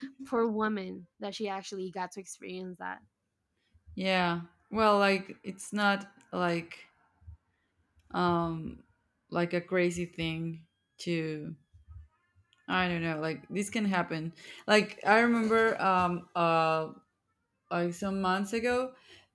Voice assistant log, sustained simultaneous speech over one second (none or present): none